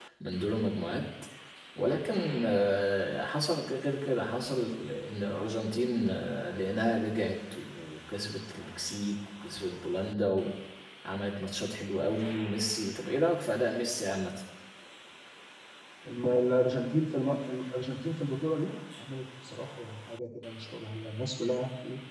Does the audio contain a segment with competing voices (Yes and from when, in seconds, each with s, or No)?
No